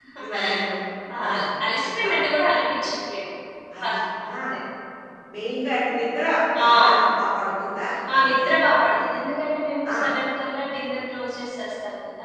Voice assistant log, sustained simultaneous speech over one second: none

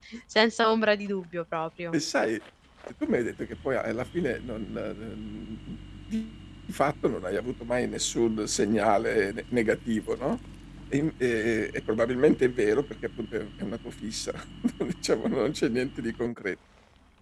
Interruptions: none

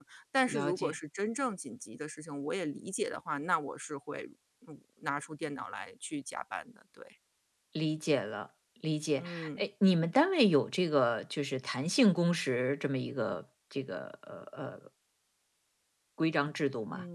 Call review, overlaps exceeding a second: none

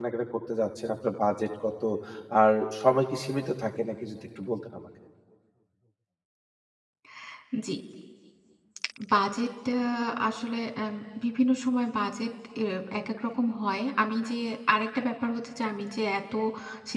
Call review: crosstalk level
none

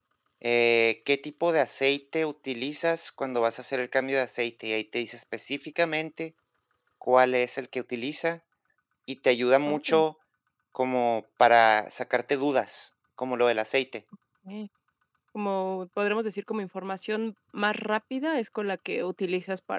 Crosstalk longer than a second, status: none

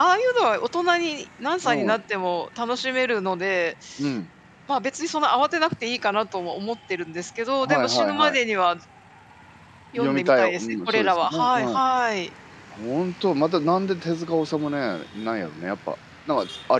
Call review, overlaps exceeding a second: present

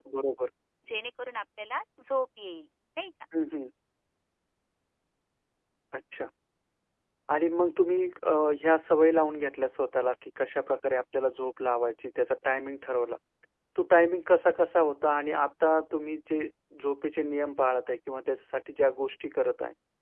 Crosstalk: none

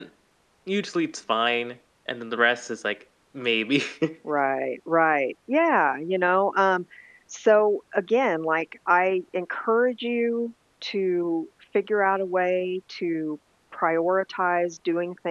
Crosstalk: none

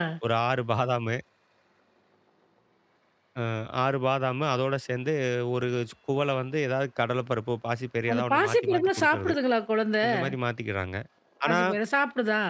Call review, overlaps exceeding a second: present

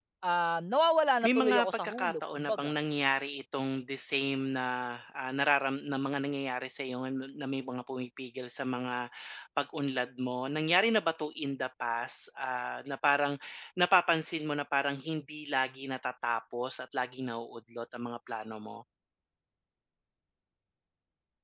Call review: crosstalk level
present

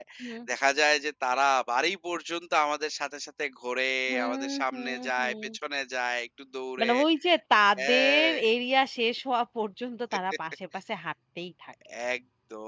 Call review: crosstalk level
present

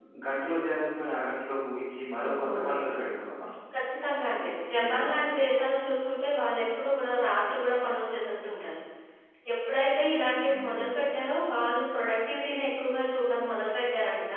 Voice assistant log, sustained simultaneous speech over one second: none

